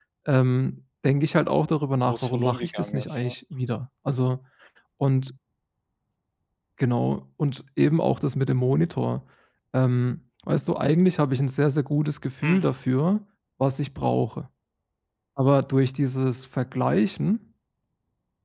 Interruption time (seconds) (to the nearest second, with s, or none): 2 s